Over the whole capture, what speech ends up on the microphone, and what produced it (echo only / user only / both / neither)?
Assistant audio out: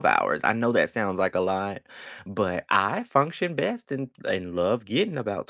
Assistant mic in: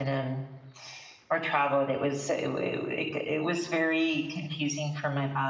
user only